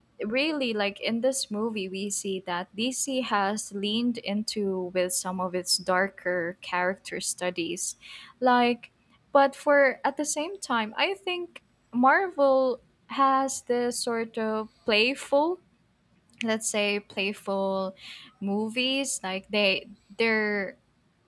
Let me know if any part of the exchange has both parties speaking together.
No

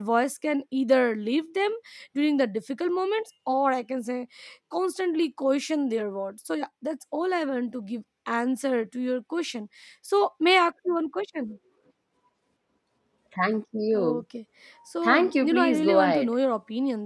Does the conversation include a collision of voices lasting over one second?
Yes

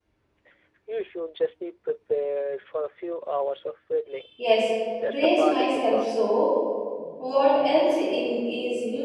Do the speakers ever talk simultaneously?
Yes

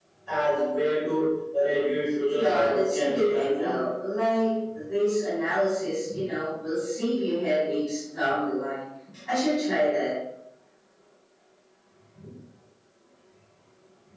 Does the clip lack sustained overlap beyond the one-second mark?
No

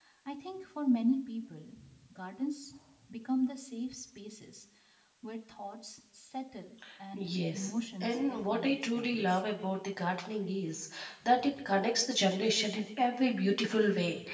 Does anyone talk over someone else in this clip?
Yes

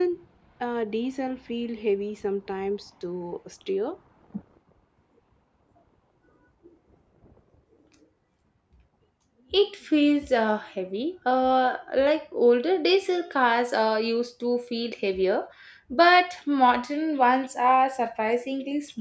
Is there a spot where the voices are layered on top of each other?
No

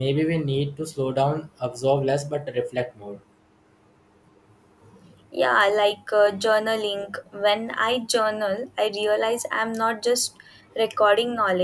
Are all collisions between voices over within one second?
Yes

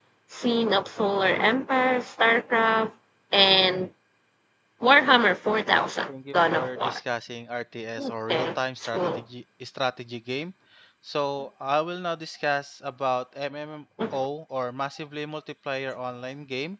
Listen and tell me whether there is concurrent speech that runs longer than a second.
Yes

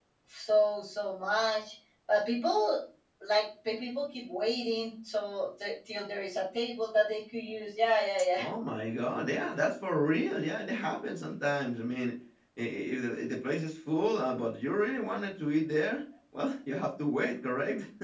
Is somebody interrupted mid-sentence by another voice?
No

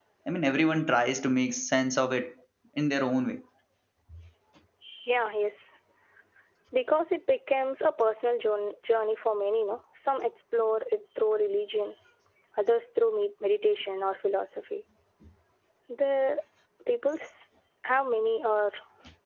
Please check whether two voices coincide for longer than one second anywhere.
No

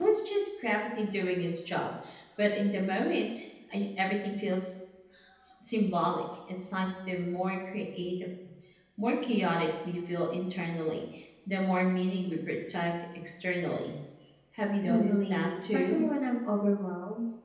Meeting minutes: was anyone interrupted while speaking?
Yes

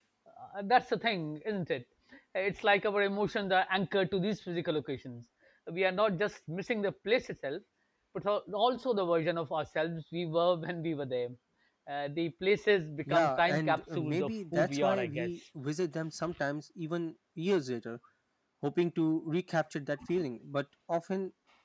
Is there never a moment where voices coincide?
No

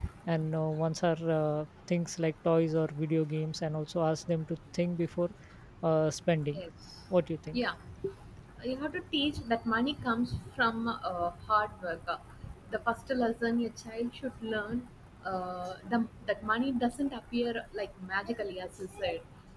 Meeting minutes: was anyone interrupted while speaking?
No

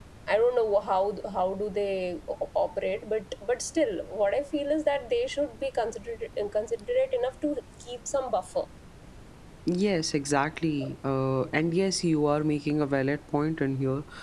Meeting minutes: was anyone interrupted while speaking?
No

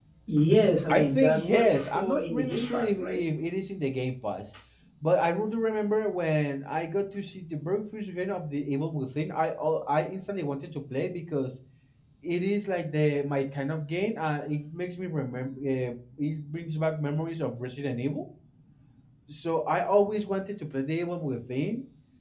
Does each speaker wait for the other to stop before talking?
No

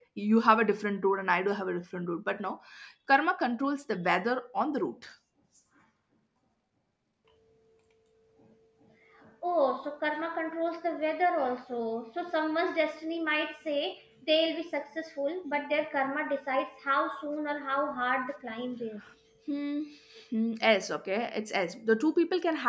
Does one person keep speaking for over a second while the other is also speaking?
No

